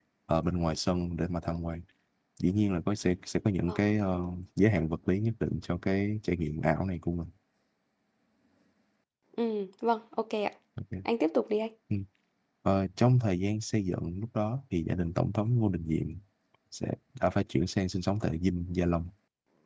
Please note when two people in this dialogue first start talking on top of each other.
none

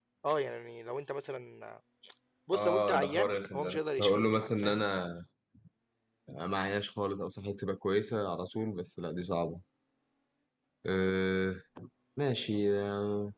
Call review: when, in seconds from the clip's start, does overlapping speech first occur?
2.6 s

